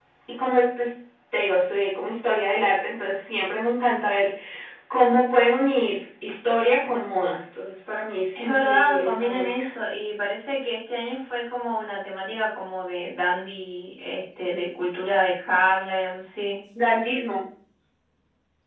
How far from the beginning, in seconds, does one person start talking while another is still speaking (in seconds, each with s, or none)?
8.3 s